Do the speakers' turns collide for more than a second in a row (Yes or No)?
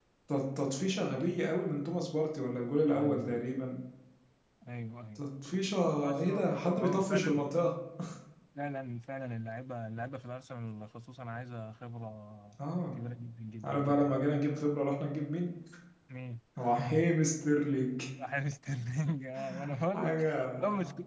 Yes